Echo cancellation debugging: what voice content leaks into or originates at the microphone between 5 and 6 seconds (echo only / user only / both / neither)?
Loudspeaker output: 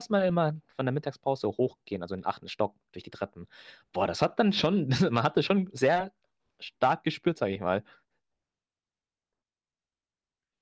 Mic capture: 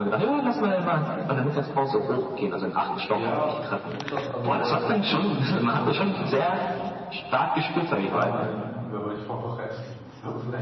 both